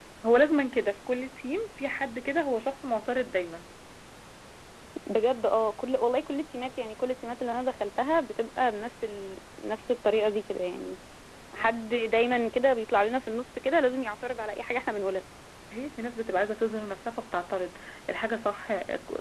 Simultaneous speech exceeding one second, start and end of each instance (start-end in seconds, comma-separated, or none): none